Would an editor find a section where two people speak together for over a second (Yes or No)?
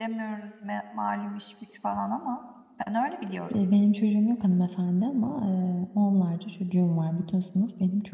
No